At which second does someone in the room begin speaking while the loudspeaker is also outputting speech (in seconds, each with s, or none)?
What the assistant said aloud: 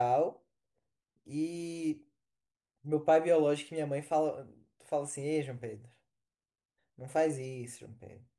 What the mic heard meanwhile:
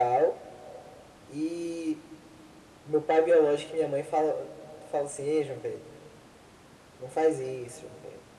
none